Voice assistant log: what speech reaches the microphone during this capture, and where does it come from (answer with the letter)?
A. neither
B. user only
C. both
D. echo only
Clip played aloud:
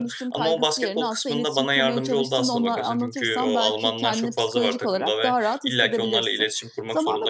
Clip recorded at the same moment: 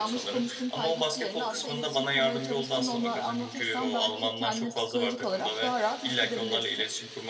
D